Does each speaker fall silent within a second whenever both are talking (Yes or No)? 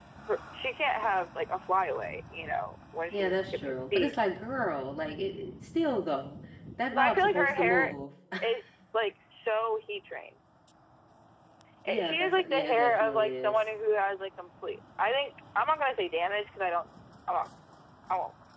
No